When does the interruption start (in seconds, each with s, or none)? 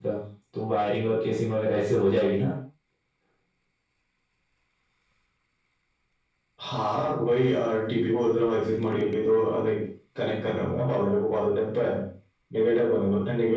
none